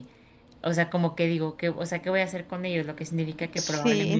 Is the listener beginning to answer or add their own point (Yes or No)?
No